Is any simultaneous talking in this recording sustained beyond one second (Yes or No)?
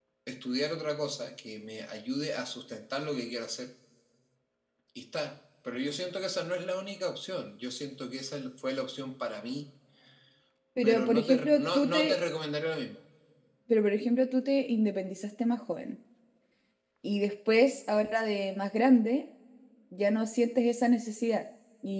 Yes